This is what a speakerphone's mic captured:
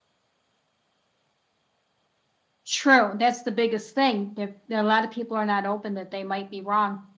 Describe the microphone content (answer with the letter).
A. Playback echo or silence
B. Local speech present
A